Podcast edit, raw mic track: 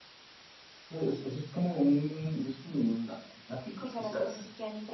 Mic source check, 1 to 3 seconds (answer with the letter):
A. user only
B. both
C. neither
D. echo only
D